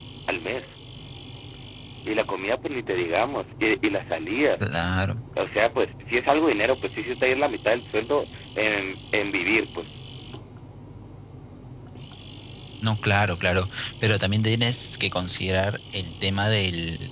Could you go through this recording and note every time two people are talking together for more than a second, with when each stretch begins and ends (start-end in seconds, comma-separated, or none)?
none